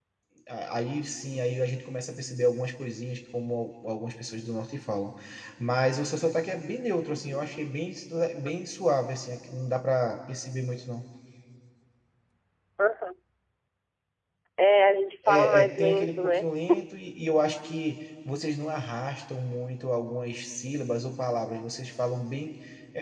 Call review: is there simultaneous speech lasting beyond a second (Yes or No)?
Yes